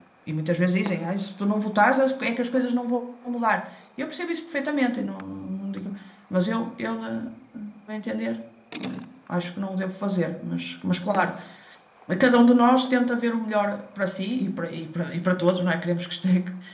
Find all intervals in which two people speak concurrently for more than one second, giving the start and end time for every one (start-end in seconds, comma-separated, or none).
none